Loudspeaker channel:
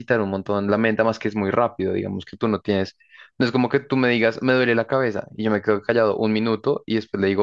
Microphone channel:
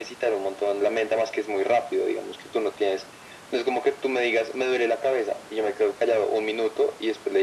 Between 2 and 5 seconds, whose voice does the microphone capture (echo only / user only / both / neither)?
echo only